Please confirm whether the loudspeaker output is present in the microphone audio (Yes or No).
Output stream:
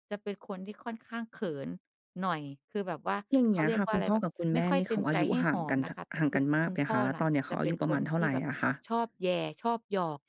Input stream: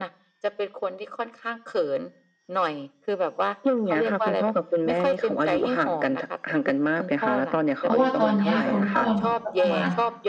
Yes